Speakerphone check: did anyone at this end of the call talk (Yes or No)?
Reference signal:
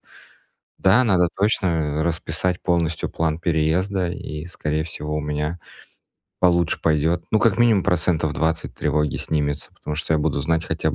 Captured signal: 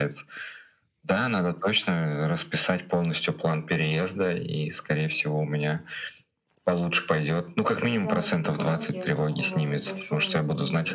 Yes